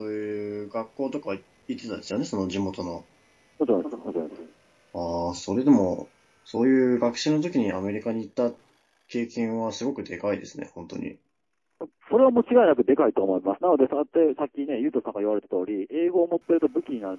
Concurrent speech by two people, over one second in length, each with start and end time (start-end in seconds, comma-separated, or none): none